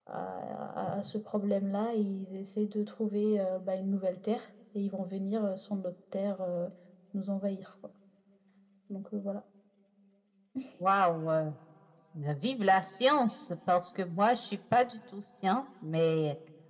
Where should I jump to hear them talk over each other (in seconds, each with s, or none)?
none